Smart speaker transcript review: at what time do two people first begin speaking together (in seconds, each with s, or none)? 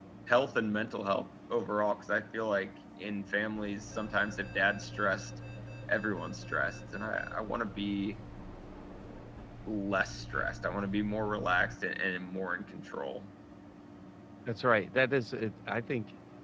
none